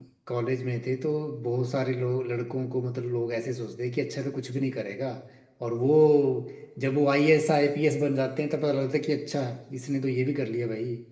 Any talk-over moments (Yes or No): No